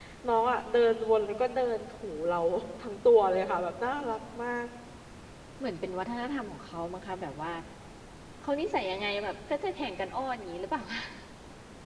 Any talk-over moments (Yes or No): No